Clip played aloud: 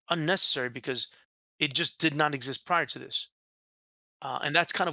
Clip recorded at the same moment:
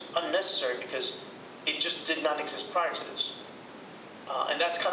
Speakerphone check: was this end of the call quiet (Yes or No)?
Yes